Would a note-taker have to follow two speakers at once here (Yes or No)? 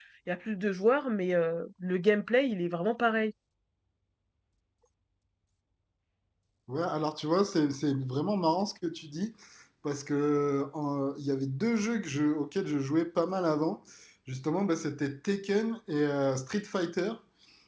No